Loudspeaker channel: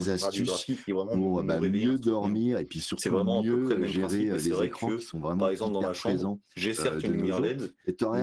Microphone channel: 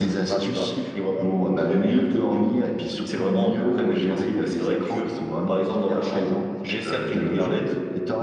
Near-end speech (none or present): present